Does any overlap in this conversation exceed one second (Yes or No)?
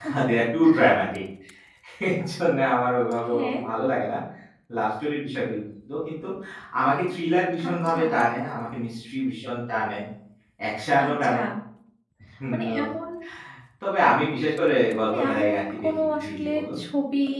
Yes